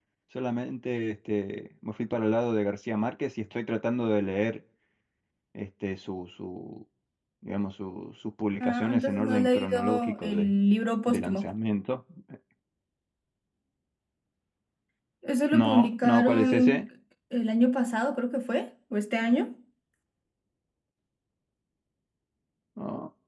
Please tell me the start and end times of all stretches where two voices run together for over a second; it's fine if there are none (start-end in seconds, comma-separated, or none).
8.6-10.5, 15.5-16.8